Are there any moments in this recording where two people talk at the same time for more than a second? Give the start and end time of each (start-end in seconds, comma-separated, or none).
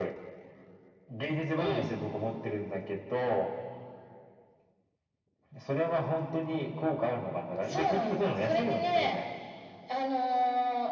7.6-9.2